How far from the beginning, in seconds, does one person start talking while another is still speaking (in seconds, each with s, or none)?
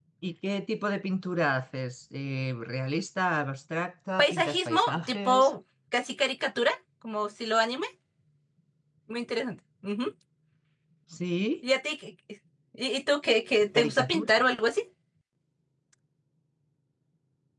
4.2 s